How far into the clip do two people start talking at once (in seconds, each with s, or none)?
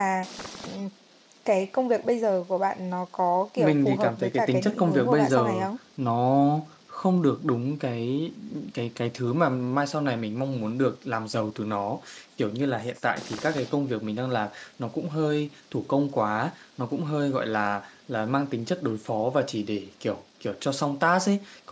3.6 s